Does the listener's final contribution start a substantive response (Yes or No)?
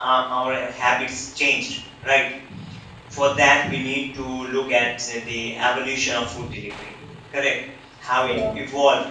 No